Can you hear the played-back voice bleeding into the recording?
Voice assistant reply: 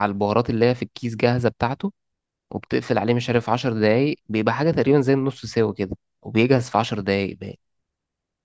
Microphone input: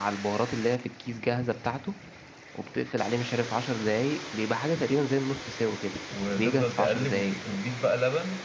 Yes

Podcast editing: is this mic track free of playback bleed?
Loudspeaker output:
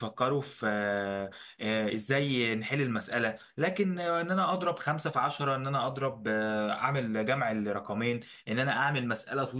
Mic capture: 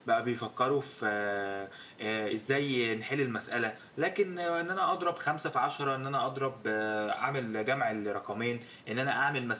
No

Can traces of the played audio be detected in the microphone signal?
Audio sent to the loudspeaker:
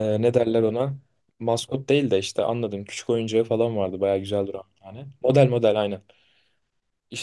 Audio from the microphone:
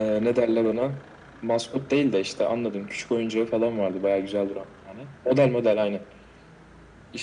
Yes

